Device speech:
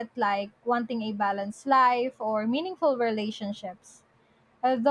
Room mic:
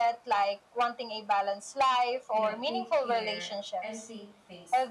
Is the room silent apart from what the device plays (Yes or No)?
No